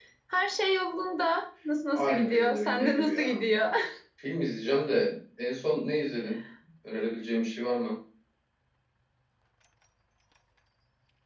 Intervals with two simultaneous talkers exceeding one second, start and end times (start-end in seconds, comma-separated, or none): 2.0-3.4